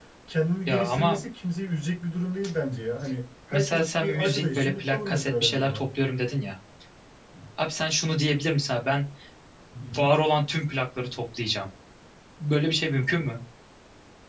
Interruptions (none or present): present